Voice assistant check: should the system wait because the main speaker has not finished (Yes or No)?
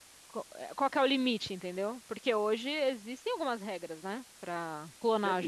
No